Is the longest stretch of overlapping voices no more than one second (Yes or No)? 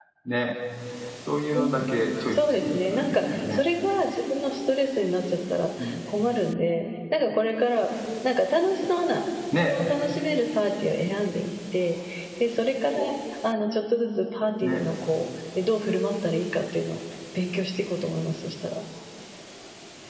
No